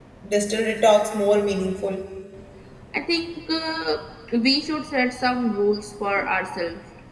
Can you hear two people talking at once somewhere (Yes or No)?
No